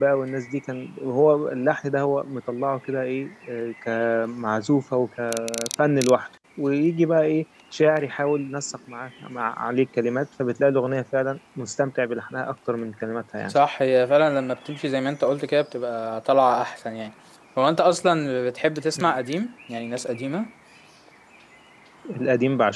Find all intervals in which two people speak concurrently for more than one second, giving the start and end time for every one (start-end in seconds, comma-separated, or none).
none